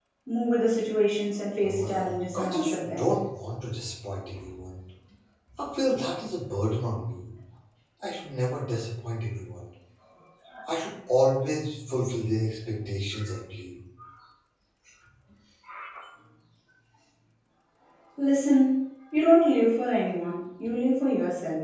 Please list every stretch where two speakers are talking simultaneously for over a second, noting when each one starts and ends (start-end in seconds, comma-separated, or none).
1.7-3.1